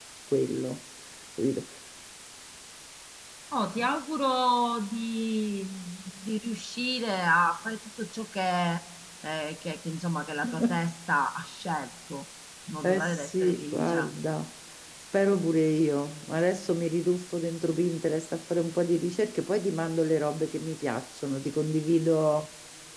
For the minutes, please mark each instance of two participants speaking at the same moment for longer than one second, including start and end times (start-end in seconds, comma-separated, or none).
12.8-14.1